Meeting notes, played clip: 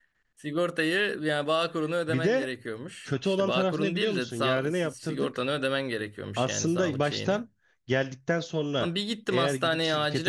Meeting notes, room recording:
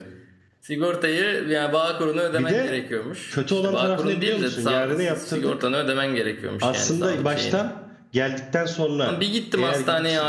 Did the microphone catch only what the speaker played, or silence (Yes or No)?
Yes